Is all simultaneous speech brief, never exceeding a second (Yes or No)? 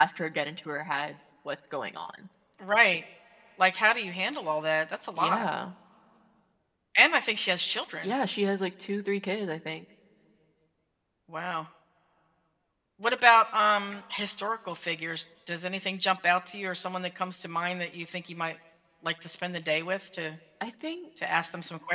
Yes